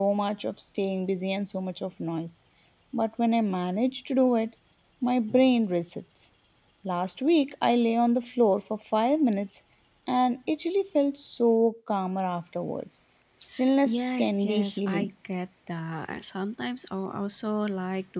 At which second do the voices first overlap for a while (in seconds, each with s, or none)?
13.8 s